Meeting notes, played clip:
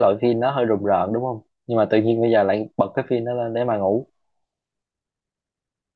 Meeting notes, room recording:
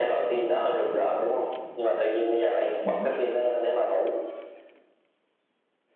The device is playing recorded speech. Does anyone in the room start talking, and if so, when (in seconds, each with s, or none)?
2.8 s